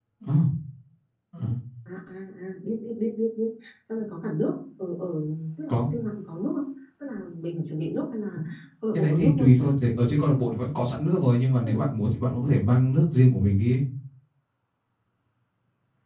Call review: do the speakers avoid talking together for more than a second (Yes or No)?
Yes